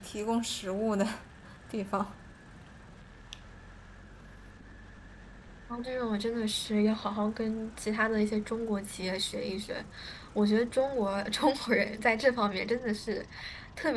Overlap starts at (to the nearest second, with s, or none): none